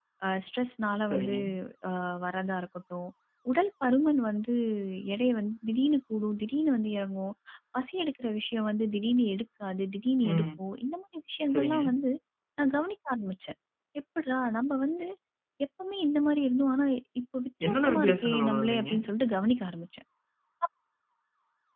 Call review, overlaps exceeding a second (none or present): present